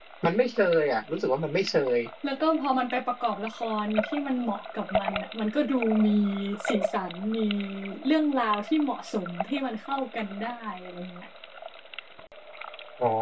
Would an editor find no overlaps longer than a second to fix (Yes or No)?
Yes